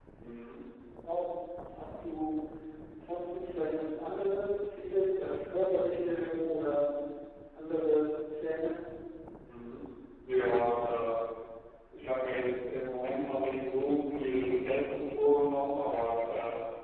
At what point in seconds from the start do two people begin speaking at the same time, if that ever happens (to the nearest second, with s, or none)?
none